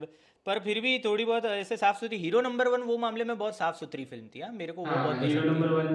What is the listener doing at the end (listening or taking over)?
taking over